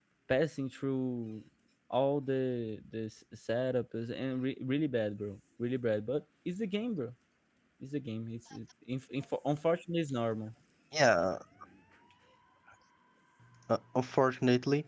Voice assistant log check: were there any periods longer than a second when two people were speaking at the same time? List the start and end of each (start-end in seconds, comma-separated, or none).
none